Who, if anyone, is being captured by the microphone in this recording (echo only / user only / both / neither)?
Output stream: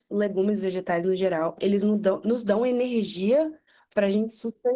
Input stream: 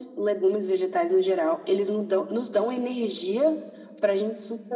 echo only